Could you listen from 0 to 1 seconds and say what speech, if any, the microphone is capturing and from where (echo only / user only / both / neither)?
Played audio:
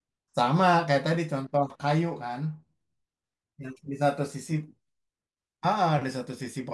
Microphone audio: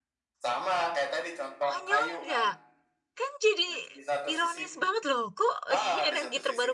echo only